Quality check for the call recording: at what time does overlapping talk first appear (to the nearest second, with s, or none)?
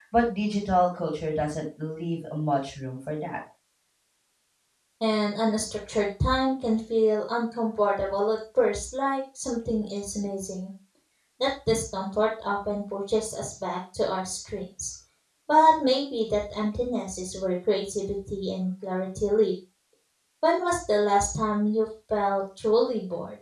none